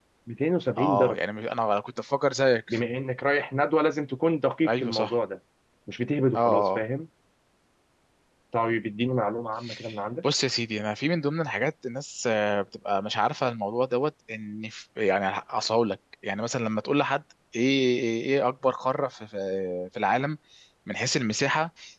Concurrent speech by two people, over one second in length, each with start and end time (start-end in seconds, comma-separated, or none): none